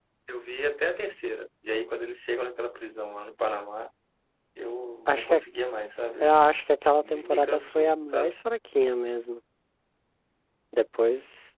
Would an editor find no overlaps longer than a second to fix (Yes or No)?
No